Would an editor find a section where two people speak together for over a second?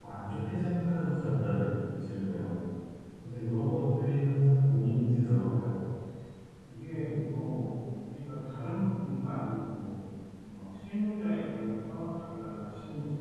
No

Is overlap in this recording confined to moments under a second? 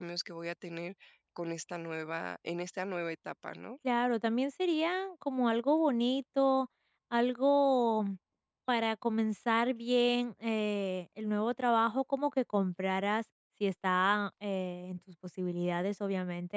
Yes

